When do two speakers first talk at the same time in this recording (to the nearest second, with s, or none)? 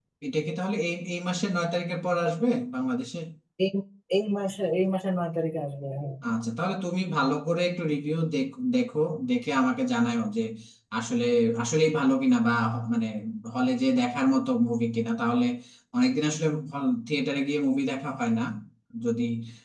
none